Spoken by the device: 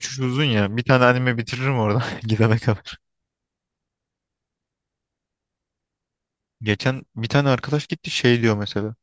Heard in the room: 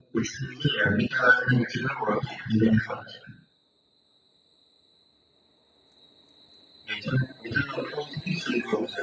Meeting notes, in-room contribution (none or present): none